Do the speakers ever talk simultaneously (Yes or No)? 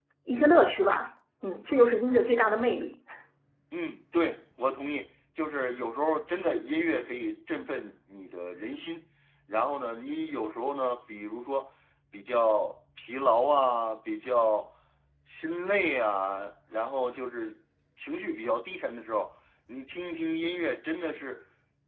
No